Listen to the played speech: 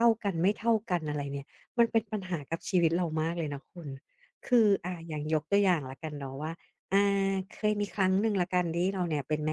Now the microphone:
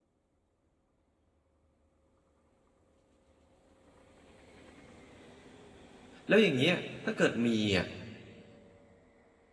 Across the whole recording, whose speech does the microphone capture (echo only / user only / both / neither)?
user only